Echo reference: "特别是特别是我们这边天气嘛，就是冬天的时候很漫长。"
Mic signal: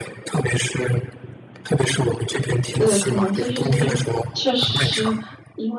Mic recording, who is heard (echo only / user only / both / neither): both